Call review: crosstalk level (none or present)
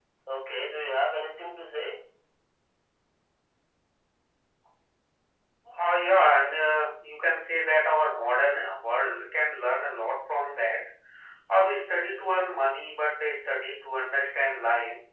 none